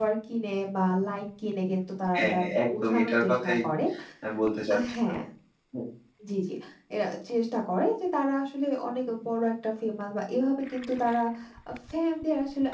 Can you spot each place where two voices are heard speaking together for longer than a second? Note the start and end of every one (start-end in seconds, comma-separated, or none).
2.1-3.5